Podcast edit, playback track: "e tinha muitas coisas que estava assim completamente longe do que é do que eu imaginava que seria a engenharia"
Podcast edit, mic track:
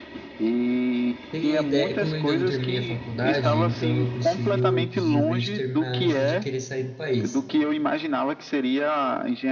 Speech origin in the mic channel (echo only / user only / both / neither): both